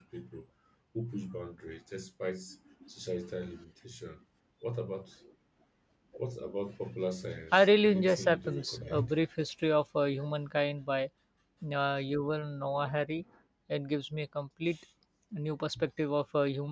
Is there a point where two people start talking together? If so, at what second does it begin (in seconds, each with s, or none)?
7.5 s